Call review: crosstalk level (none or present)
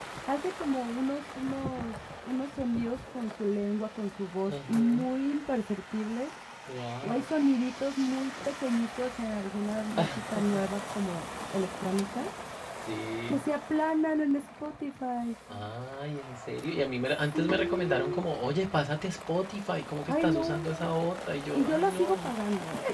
present